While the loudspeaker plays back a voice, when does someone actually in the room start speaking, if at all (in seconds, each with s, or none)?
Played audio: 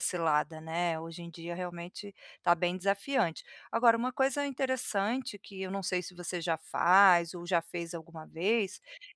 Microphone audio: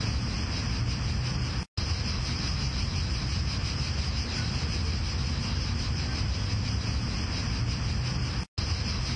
none